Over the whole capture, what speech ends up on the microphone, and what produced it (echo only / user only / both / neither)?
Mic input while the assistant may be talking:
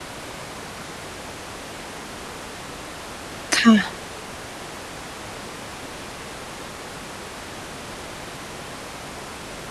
user only